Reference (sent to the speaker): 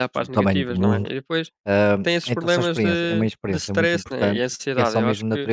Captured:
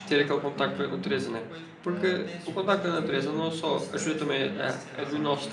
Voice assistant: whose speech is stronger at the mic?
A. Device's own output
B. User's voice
B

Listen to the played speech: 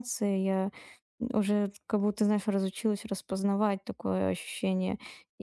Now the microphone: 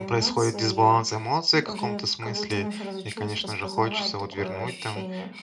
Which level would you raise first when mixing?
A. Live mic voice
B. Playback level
B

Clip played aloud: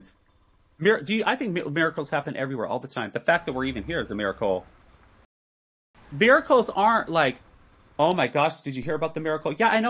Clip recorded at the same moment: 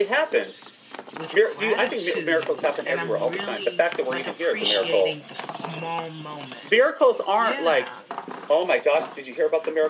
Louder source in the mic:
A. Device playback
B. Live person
A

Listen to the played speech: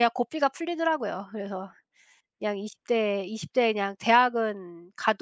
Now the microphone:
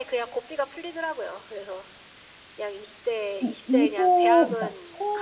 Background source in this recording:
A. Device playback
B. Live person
A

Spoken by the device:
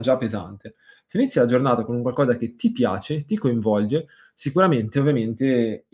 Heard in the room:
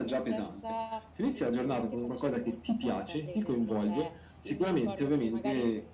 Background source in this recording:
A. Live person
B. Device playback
A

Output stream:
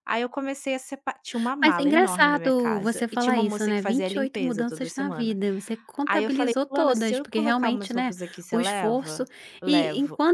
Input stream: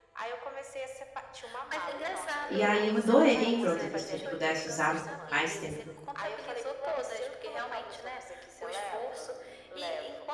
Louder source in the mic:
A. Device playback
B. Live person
B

